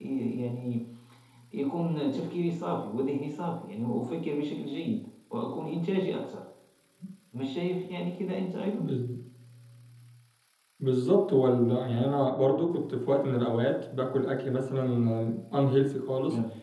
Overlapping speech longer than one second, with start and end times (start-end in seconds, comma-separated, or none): none